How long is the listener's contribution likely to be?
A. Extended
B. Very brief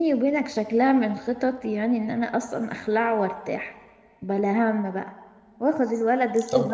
A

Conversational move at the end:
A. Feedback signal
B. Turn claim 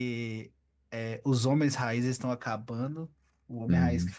A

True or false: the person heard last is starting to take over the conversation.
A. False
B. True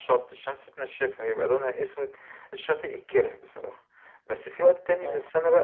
A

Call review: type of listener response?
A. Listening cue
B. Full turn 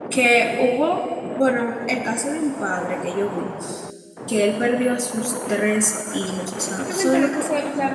B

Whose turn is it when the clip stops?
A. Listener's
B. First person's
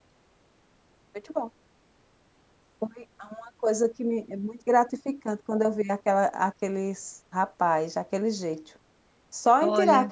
B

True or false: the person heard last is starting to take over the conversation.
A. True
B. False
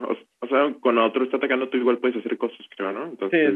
A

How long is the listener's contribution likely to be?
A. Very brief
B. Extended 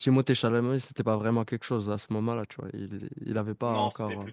B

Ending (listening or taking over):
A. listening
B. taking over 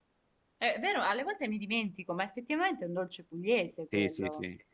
B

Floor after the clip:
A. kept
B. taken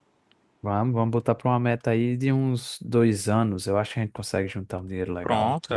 B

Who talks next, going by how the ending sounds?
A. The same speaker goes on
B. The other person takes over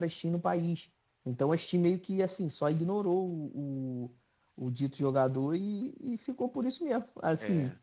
A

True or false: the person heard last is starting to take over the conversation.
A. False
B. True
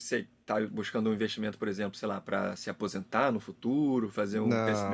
B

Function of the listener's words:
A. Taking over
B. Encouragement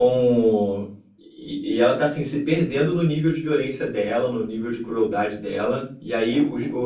B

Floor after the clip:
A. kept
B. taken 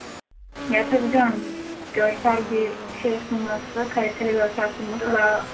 A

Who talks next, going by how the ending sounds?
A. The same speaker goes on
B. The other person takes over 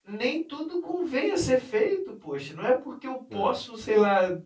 A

